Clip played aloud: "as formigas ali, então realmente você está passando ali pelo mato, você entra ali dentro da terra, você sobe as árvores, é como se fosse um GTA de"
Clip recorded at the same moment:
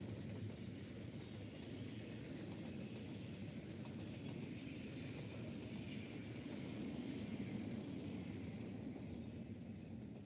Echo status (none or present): none